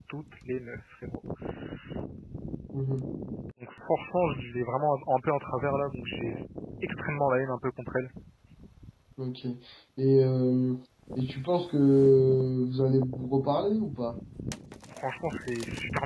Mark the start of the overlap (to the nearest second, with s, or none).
none